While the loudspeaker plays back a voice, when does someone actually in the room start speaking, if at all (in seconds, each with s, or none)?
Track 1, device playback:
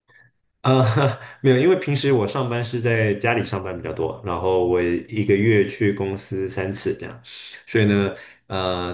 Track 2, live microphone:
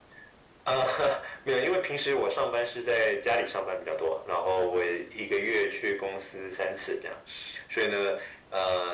none